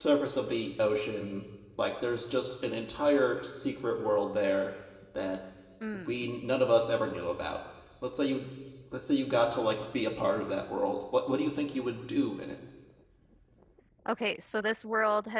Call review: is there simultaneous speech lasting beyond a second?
No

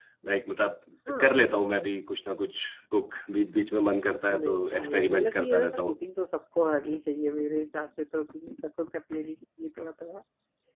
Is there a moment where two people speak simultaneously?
Yes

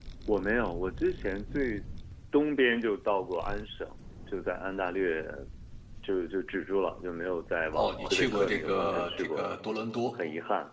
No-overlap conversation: No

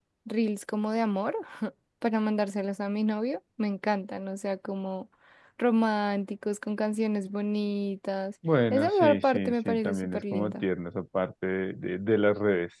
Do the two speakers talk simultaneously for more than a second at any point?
Yes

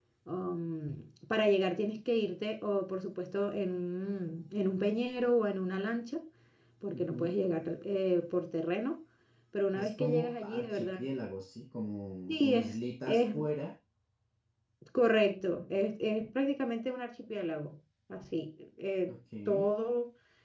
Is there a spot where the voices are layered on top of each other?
Yes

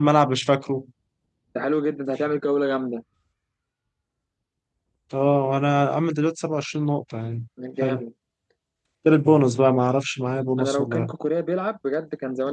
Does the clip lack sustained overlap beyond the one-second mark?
Yes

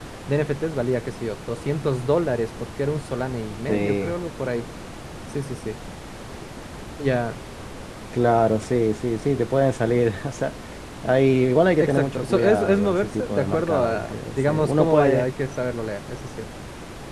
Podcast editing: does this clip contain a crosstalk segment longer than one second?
Yes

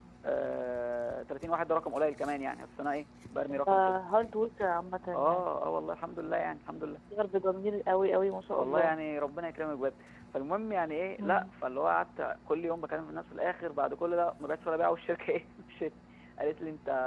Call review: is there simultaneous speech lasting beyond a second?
No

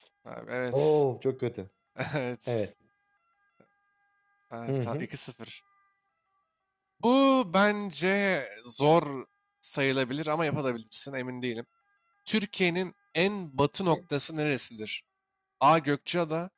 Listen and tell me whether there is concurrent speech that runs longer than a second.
No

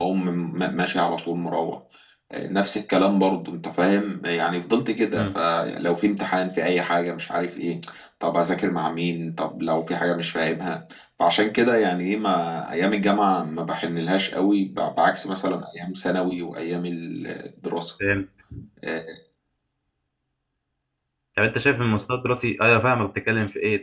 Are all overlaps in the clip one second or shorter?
Yes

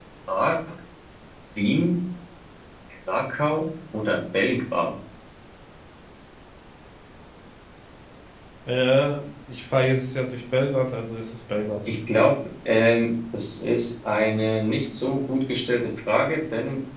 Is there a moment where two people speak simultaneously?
No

